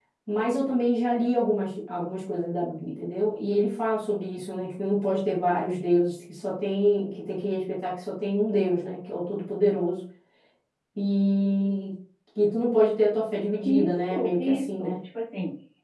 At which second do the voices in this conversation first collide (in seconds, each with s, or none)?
13.6 s